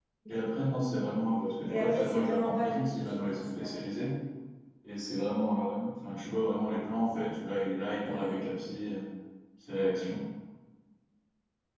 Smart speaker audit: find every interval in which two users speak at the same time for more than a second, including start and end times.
1.7-3.8

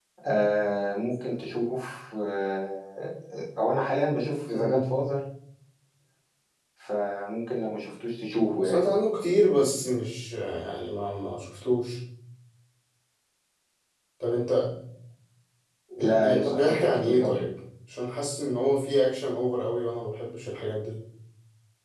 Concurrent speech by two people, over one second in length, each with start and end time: 16.0-17.4

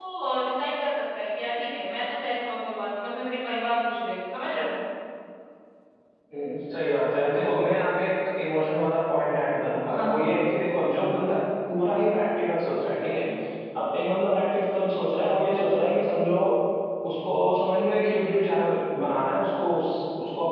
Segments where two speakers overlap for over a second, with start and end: none

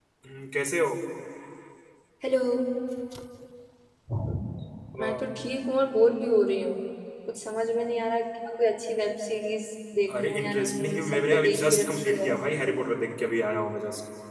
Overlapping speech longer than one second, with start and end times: 10.2-12.3

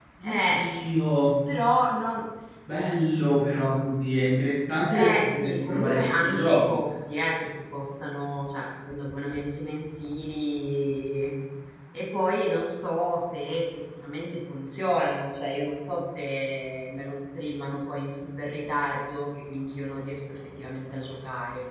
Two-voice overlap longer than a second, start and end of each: 4.9-6.6

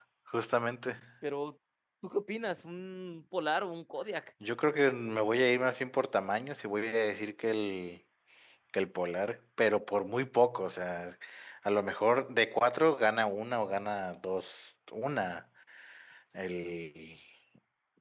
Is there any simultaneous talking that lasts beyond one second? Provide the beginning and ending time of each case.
none

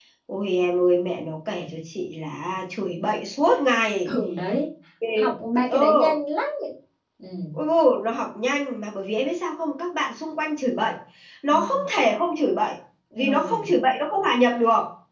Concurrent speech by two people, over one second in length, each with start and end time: none

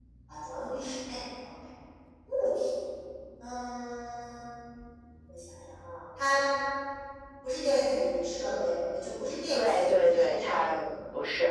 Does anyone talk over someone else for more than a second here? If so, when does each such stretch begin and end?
9.5-10.9

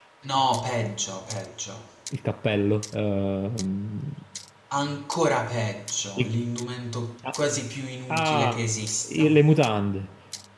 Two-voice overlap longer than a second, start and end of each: none

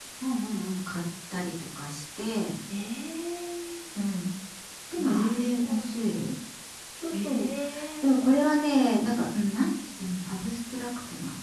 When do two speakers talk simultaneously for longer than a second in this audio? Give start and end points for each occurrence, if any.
5.0-6.3

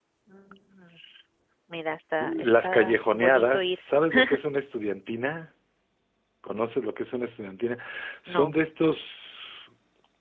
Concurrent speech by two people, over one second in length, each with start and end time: 2.2-3.8

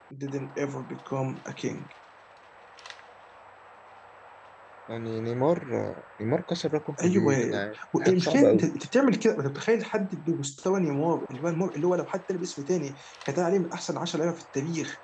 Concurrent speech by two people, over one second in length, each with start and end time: 7.0-8.7

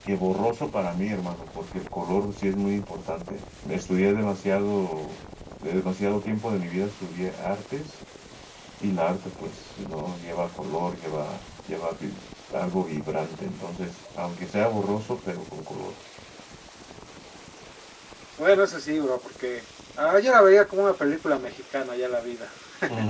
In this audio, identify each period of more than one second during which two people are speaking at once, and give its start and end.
none

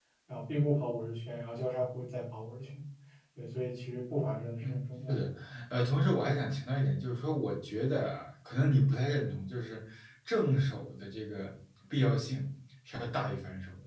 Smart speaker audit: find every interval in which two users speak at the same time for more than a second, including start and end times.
none

